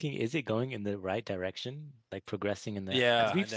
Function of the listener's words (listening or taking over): taking over